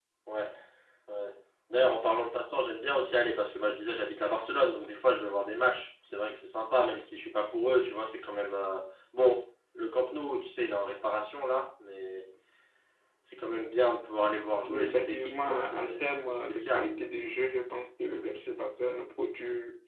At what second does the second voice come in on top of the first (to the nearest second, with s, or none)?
15 s